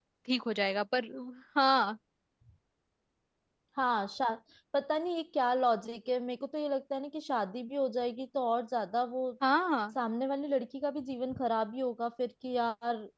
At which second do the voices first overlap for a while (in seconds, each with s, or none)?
none